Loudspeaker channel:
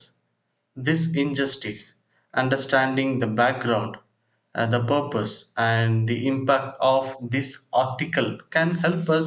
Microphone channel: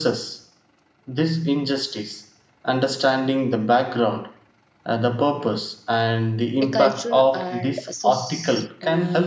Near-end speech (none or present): present